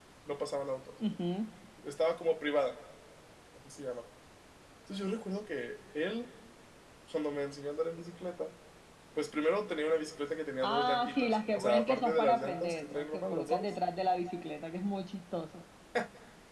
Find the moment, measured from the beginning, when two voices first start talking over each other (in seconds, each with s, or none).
10.6 s